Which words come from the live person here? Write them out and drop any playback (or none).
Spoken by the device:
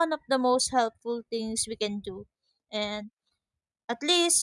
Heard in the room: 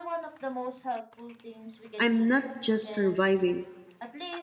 I'm not just surviving.